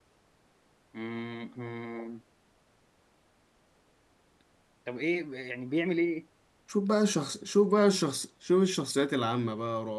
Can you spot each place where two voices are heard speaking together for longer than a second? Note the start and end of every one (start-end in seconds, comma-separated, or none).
none